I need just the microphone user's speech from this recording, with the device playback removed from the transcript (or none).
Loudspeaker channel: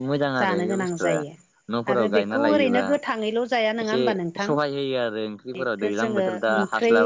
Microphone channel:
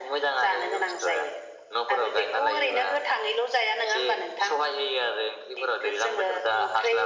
none